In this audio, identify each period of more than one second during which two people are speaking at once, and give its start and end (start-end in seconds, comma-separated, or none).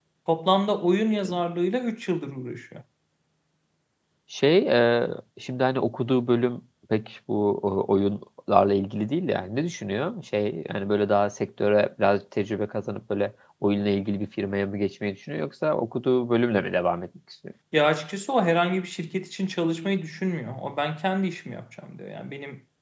none